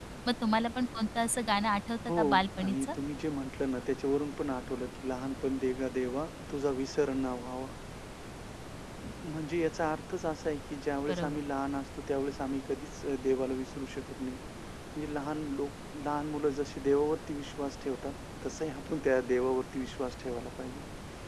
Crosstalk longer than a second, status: none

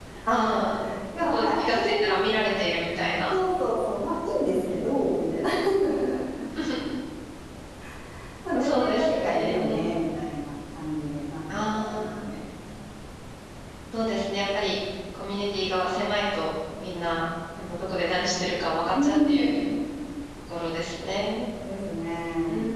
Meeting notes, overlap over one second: present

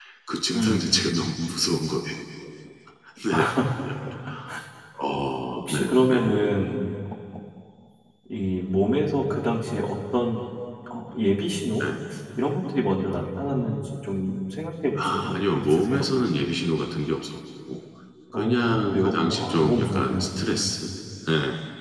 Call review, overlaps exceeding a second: present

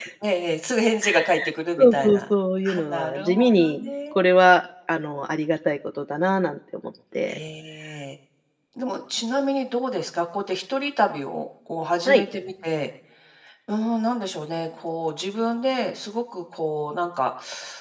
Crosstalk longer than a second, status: present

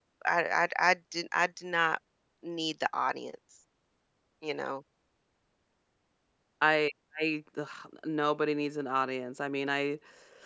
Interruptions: none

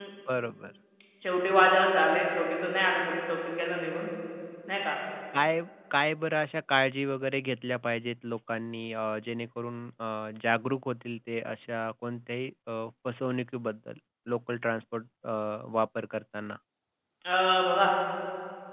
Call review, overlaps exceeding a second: none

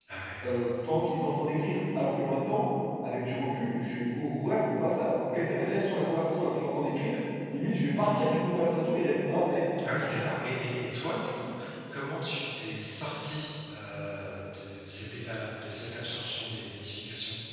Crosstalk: none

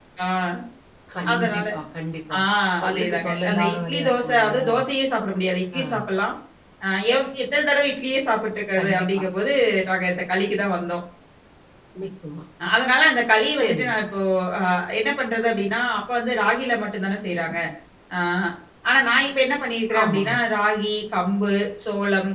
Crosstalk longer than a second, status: present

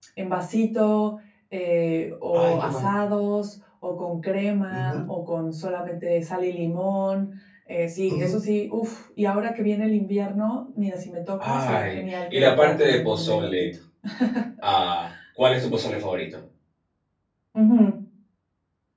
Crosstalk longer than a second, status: present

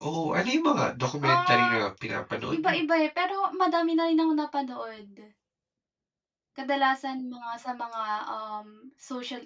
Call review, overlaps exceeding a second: none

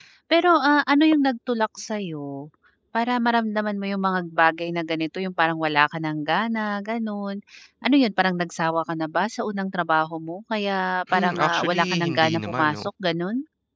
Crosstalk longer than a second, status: present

